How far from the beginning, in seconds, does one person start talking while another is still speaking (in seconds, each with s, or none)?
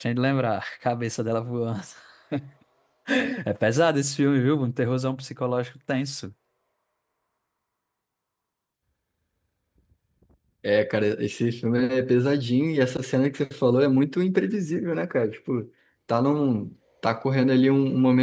none